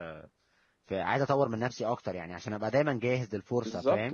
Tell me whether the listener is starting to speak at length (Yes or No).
Yes